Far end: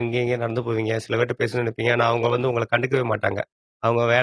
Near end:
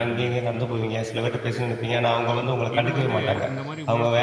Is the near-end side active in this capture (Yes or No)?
Yes